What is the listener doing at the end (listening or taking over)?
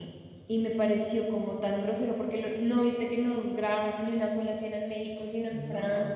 taking over